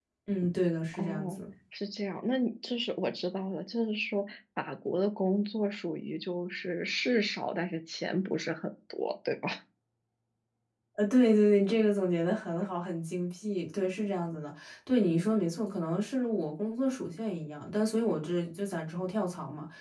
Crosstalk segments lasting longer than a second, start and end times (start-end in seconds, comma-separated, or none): none